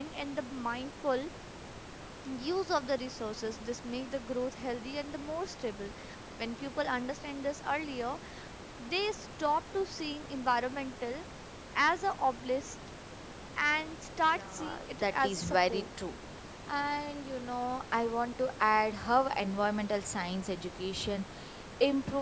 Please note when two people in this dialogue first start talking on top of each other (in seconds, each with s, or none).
14.3 s